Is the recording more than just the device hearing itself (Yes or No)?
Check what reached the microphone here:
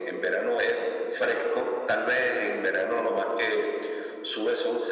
No